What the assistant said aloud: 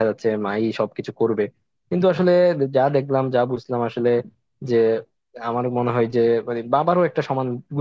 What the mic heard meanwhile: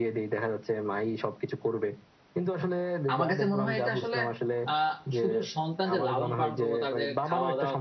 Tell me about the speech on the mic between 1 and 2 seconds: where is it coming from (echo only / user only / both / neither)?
echo only